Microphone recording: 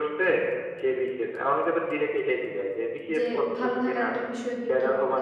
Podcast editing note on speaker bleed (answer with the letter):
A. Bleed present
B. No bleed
A